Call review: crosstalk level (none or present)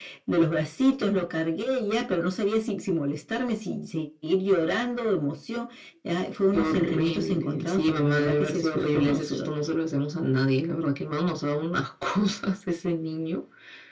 present